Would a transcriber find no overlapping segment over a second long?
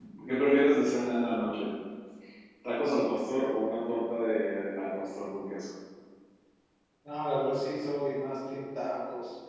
Yes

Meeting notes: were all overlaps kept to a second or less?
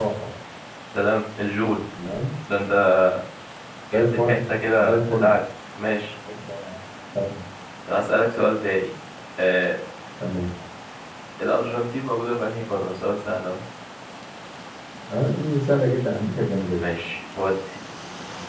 Yes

